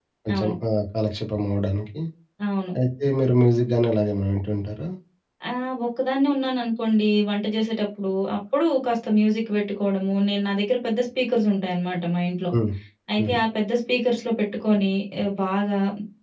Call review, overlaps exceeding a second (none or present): none